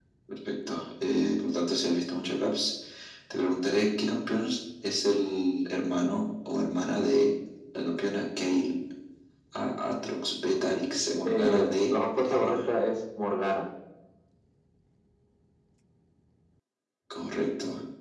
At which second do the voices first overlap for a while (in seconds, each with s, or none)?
11.2 s